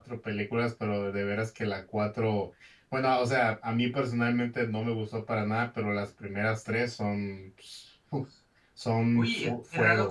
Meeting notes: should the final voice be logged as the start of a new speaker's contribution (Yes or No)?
Yes